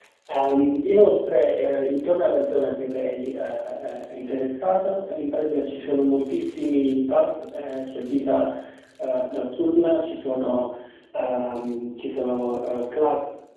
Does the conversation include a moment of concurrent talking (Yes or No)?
No